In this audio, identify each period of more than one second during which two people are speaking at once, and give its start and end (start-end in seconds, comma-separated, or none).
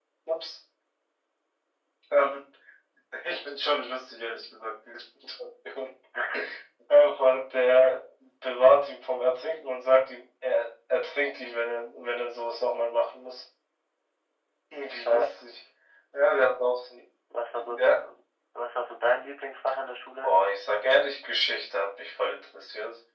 none